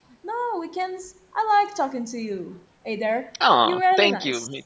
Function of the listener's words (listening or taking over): taking over